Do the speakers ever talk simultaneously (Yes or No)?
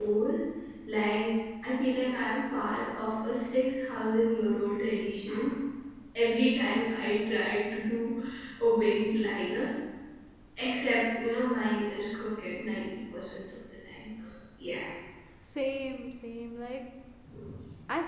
No